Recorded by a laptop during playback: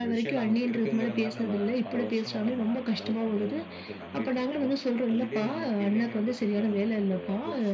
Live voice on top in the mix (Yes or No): No